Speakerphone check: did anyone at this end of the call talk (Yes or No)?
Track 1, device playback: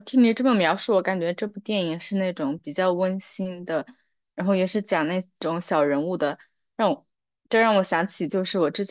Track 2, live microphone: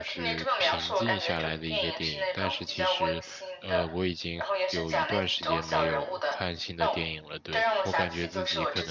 Yes